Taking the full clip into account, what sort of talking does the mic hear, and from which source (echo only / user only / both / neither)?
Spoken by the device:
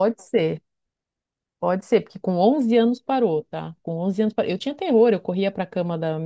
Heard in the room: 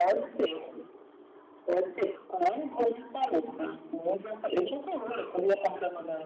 echo only